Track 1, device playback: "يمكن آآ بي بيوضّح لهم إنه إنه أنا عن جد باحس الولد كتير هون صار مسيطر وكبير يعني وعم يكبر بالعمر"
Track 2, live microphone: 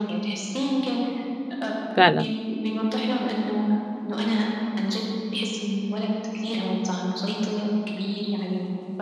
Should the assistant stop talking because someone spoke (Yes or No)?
Yes